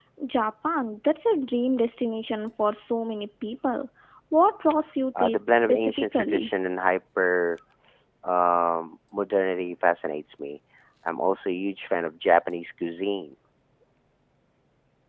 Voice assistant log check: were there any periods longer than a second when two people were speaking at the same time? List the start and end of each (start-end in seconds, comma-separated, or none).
5.2-6.5